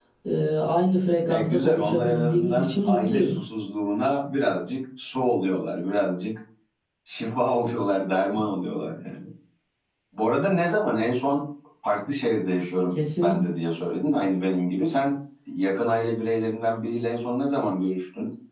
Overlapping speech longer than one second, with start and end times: 1.2-3.3

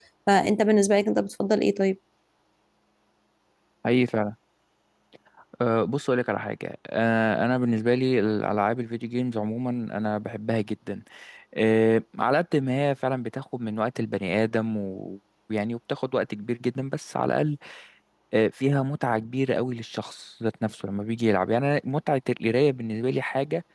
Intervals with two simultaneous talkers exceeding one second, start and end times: none

